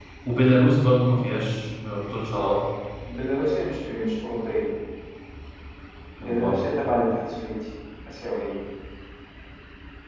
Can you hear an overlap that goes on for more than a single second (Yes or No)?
No